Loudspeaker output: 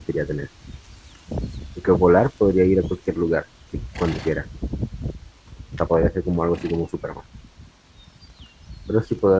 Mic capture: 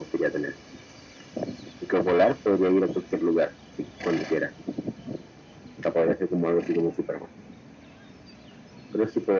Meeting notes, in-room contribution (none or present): none